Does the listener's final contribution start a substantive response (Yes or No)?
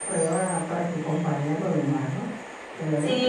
Yes